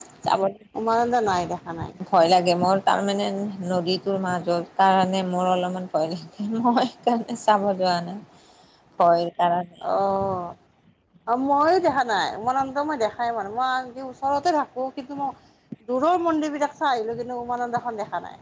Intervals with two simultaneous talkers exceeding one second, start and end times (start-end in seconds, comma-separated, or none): none